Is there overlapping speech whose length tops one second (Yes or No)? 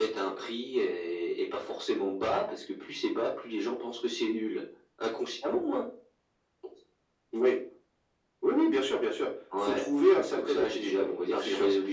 Yes